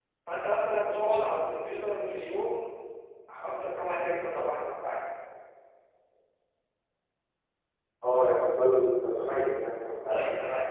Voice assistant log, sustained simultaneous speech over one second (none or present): none